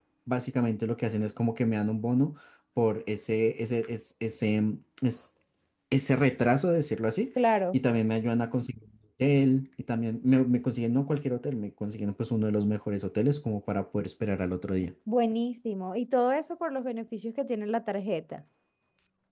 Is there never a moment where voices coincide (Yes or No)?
Yes